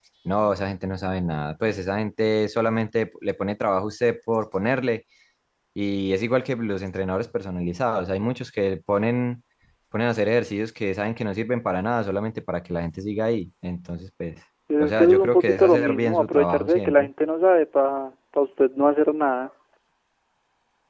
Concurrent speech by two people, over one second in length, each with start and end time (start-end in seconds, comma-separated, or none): 14.8-17.1